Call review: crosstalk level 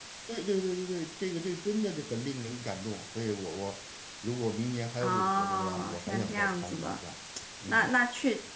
present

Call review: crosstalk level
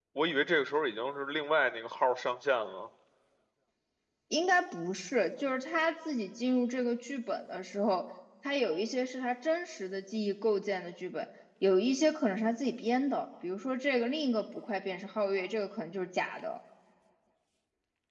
none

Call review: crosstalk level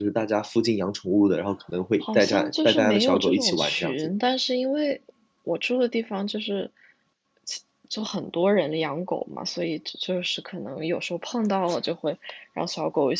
present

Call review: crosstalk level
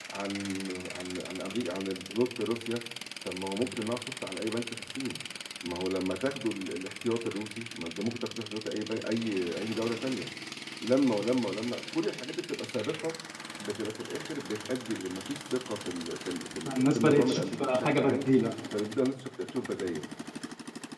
present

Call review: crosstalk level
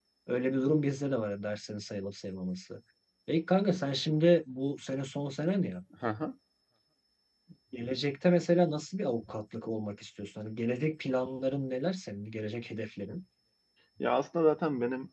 none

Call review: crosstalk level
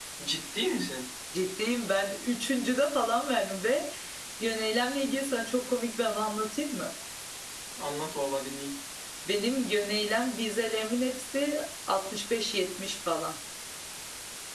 none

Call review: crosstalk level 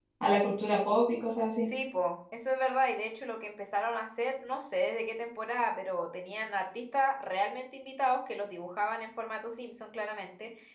none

